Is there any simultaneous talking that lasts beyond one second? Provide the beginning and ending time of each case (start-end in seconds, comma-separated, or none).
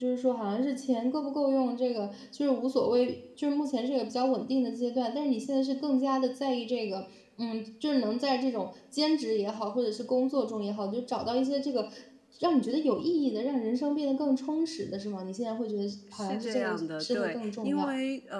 16.1-17.9